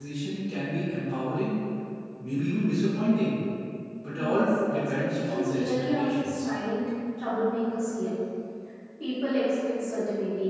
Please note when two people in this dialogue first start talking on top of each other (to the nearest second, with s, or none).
4 s